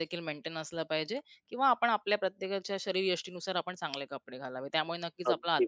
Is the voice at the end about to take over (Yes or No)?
No